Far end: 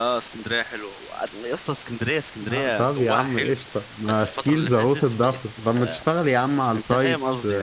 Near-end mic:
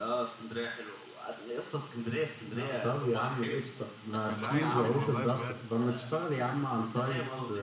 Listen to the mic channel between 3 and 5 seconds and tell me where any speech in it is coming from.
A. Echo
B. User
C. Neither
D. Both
D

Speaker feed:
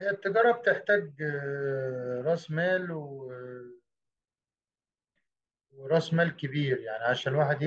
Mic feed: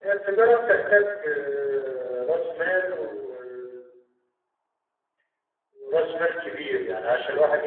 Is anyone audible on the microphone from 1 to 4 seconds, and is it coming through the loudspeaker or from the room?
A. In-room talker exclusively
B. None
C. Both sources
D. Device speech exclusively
D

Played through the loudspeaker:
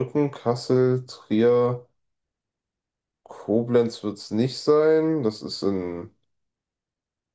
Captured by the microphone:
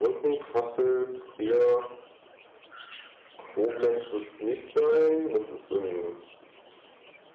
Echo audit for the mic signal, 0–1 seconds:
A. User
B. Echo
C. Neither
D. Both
B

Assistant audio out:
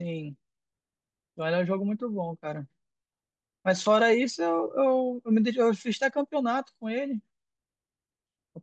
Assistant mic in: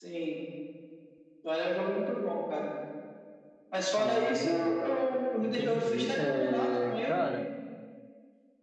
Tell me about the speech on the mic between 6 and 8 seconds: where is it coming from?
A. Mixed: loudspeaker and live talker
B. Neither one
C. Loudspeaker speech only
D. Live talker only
A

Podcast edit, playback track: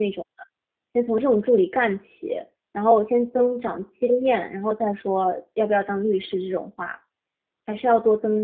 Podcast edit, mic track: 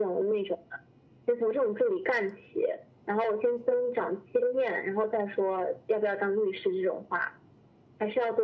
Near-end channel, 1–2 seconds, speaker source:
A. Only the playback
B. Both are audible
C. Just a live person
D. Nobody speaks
A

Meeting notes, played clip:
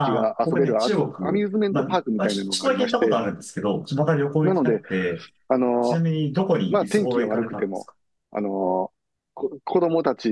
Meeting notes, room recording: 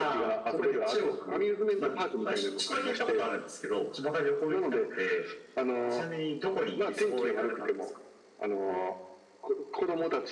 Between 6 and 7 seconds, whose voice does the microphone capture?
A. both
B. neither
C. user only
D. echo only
D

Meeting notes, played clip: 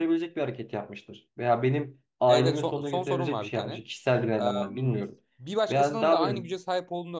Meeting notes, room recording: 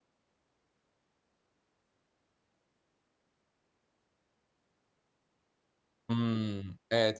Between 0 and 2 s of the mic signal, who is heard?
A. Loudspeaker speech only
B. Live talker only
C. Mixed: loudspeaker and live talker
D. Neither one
D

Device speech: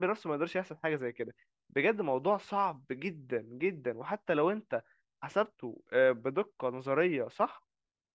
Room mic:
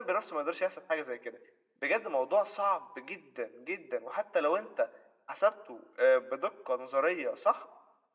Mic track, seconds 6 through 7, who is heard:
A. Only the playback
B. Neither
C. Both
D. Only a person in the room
A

